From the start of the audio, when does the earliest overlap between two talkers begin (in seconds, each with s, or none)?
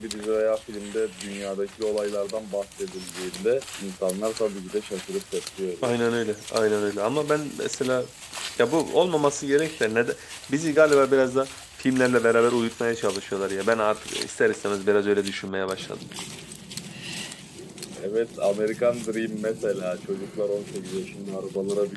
none